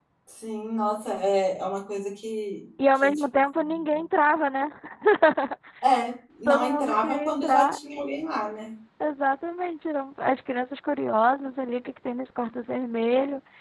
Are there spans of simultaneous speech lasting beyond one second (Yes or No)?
Yes